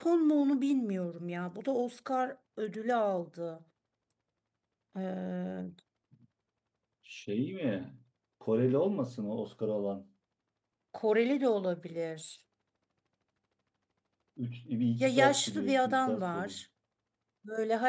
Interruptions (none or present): present